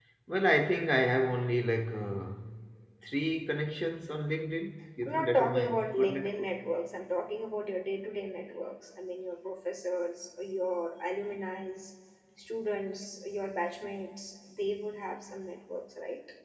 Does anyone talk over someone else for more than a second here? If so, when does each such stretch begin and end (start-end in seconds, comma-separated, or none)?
5.0-6.5